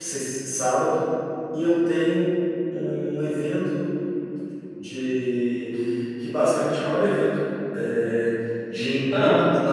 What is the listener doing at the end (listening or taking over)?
listening